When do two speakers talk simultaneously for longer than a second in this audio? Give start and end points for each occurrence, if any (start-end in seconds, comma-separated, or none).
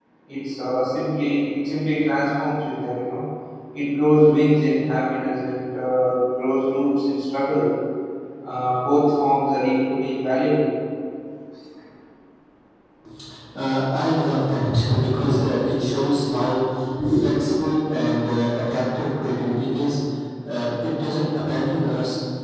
none